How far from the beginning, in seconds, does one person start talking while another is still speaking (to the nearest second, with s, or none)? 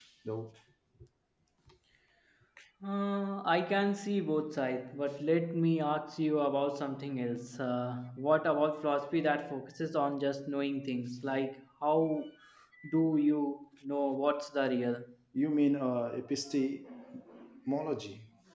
none